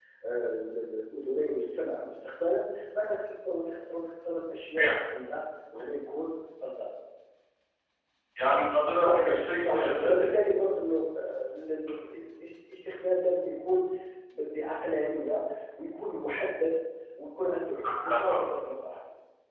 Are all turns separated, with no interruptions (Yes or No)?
No